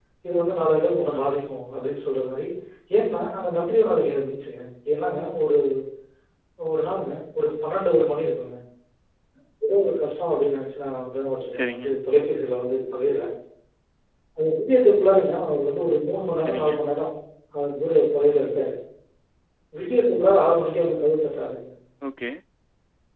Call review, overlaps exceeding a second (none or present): none